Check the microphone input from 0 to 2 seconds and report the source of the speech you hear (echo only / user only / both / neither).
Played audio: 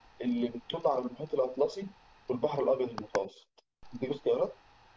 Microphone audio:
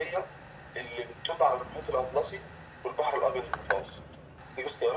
echo only